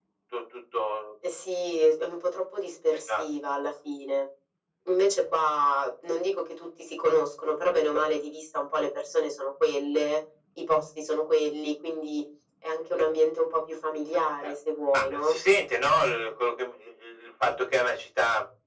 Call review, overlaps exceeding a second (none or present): none